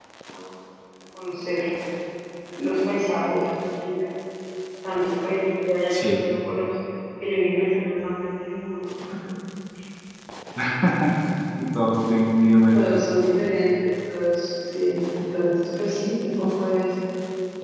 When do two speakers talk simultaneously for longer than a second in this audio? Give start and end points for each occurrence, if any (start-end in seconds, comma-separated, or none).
none